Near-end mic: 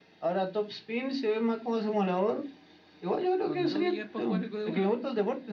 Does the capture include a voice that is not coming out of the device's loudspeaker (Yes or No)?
Yes